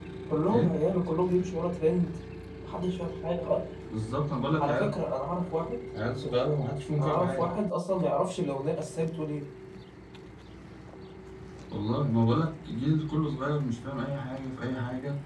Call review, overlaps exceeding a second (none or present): none